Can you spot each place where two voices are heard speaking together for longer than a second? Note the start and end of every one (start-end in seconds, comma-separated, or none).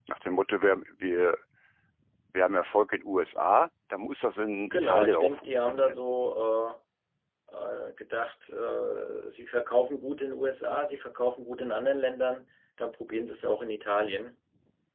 4.7-6.0